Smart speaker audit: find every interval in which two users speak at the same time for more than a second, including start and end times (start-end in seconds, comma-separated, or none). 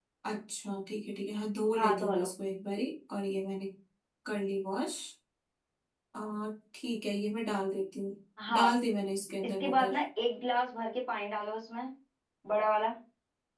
none